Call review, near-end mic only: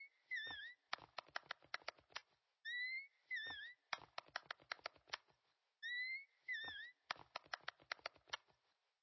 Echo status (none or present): none